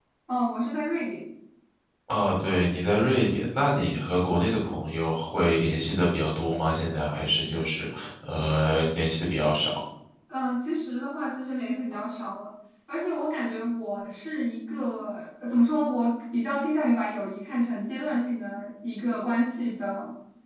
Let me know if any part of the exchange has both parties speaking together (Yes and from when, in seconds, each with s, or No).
No